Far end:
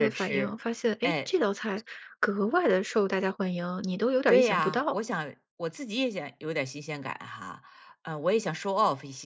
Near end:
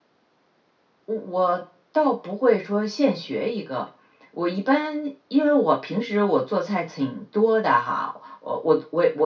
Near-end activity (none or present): present